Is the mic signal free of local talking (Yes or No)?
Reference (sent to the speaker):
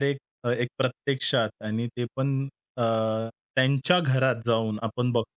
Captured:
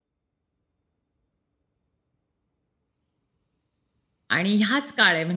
No